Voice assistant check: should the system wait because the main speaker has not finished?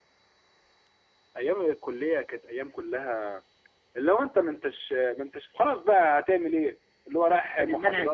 No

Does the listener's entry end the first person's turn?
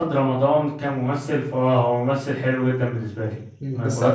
Yes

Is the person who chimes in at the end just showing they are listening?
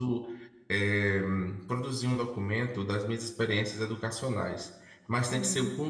Yes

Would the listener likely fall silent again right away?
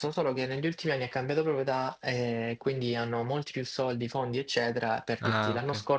Yes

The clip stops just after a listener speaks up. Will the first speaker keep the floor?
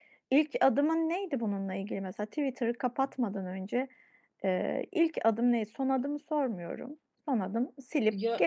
Yes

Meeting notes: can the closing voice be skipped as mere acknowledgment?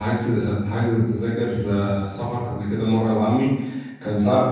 Yes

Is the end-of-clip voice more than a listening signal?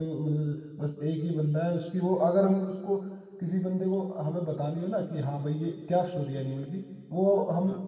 No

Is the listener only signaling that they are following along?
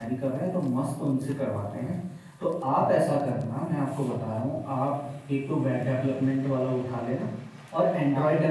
Yes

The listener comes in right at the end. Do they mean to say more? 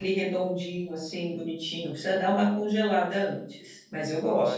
Yes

